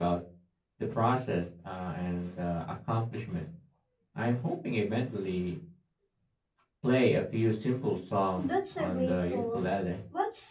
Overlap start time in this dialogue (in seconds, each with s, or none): 8.4 s